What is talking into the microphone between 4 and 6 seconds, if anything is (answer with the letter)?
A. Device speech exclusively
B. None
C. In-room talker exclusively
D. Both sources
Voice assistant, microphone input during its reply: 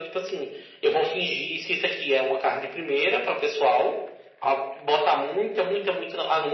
A